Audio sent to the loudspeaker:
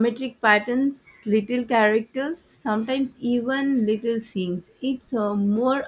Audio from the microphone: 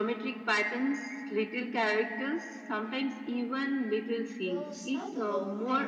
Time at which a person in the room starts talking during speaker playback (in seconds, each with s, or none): 4.4 s